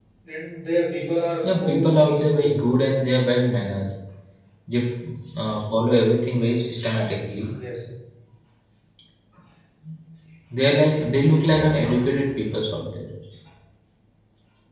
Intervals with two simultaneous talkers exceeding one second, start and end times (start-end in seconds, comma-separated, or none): 1.4-2.6